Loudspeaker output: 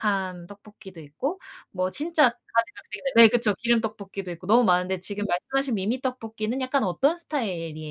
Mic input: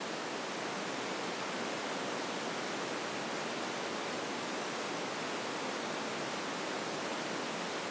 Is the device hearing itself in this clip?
No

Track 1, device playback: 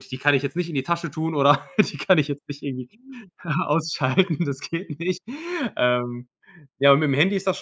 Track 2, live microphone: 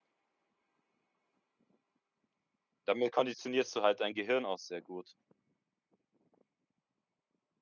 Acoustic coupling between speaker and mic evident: No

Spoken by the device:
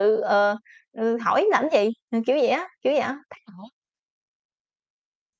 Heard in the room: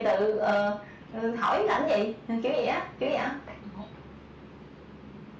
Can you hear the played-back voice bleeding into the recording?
Yes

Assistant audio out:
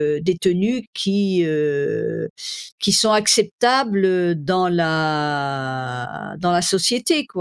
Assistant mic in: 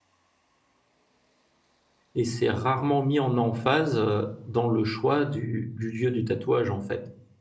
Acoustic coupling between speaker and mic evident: No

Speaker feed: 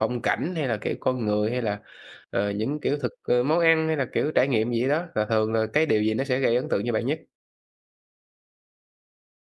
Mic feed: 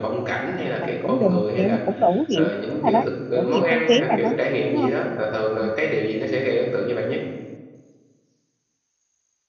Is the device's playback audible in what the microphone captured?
Yes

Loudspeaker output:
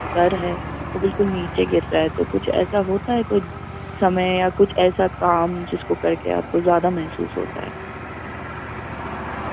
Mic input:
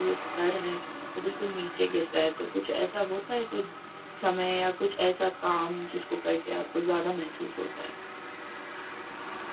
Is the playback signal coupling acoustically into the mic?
Yes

